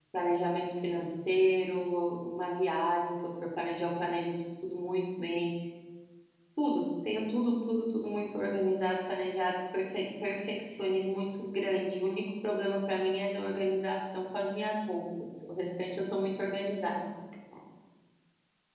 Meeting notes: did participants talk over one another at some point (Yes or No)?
No